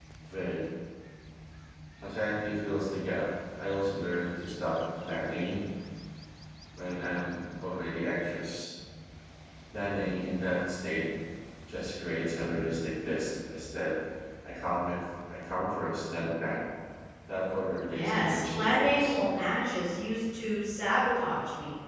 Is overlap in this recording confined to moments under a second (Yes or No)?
No